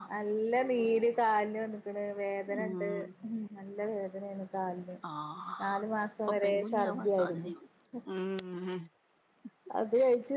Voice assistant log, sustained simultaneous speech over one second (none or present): present